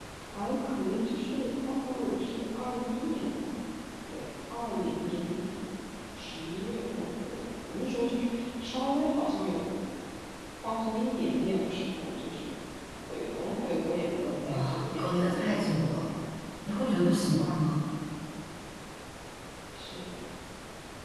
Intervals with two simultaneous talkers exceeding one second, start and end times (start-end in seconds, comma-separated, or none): 14.5-16.0